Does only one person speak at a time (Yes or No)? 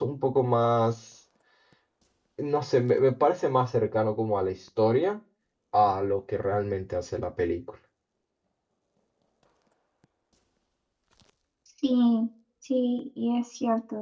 Yes